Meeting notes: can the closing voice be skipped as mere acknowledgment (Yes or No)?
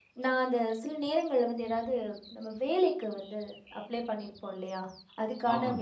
Yes